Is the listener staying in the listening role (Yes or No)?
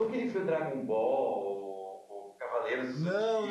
No